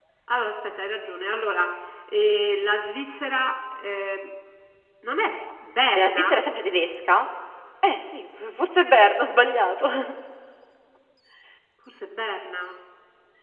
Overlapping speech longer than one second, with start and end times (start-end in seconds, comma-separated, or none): none